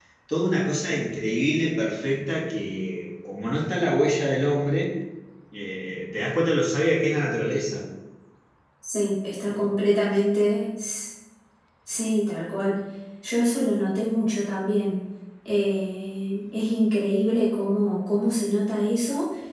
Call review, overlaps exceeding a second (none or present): none